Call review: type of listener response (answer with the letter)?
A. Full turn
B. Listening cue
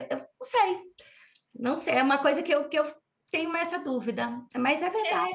A